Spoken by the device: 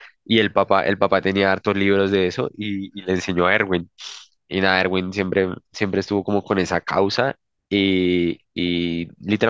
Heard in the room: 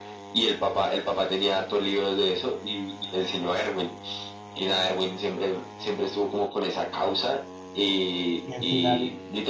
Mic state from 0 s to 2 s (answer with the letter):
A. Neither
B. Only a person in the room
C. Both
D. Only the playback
D